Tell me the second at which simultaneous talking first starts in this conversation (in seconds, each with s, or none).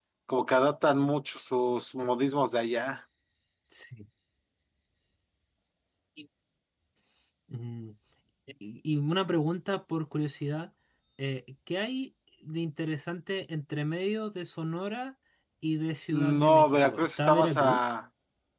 16.1 s